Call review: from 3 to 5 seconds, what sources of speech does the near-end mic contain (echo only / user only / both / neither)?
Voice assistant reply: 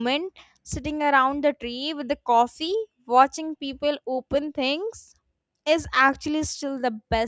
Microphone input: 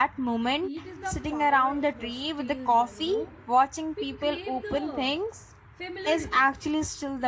both